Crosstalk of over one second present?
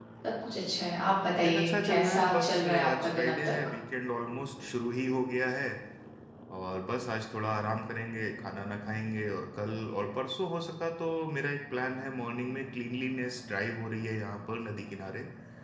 Yes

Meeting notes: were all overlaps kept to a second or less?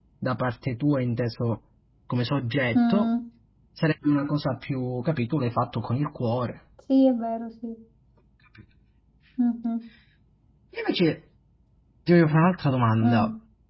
Yes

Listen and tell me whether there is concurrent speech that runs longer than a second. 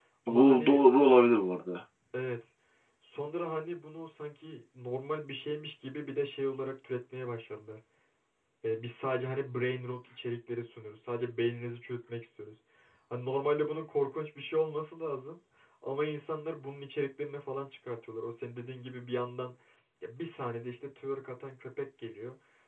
No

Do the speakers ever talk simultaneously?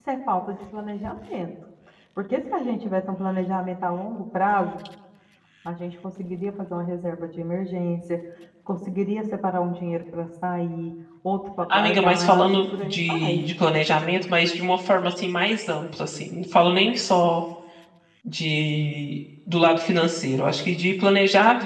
Yes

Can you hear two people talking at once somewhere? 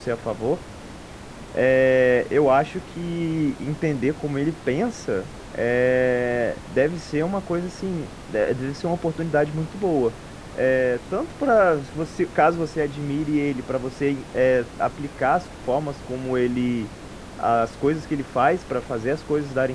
No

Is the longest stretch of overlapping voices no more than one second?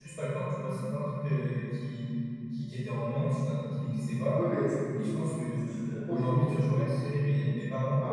Yes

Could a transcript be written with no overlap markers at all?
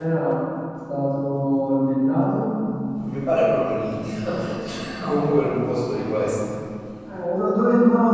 Yes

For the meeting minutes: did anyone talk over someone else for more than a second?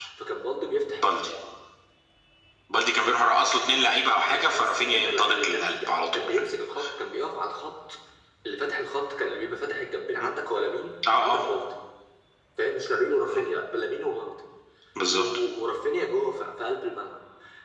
Yes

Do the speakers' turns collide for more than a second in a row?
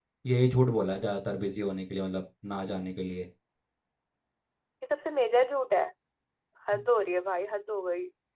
No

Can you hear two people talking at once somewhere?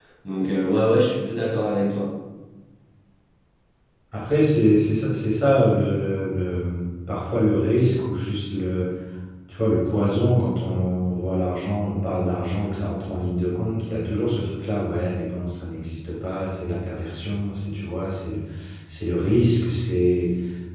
No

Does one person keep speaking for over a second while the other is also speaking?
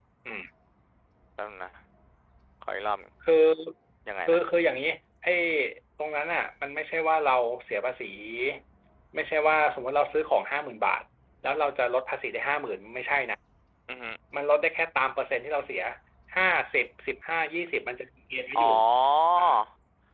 No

